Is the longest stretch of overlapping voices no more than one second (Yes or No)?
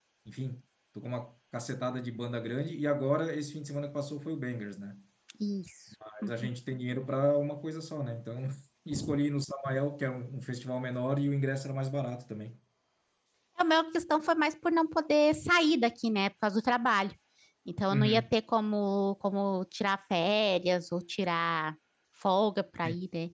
Yes